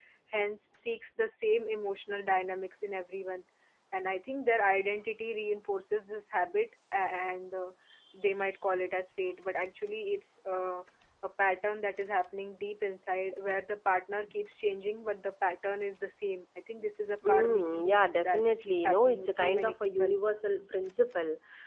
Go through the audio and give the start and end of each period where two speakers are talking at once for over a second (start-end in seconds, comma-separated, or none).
17.3-20.2